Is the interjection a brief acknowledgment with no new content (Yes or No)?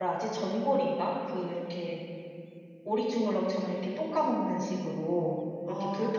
Yes